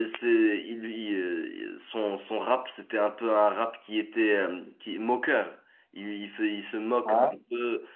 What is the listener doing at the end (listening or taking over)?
listening